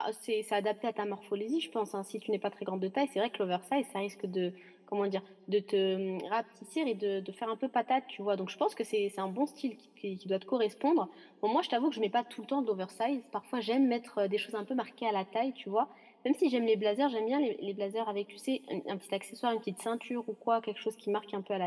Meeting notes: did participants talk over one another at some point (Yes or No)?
No